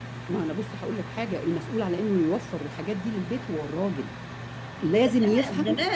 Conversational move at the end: taking over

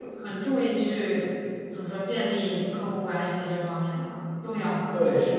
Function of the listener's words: taking over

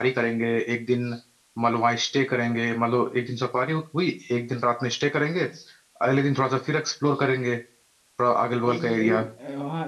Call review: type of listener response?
taking over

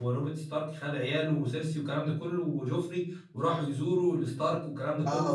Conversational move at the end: listening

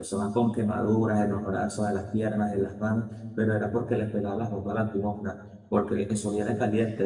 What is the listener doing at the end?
listening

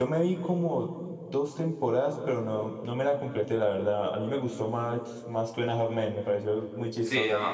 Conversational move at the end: taking over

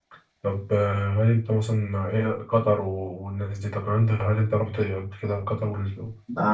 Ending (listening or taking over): taking over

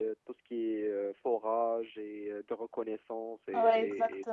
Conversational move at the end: taking over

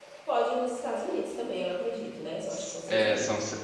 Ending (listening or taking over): taking over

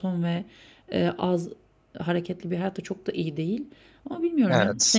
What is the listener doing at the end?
listening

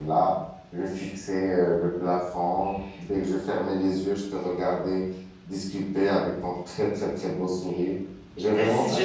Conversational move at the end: taking over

